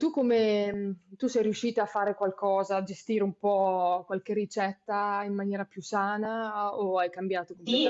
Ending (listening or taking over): taking over